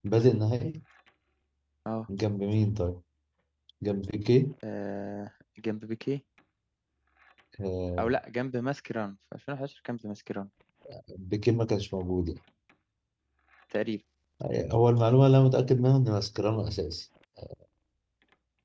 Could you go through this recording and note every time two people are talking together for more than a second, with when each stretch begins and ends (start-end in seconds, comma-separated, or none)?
none